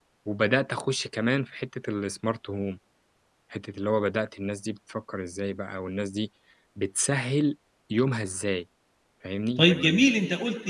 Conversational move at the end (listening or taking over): taking over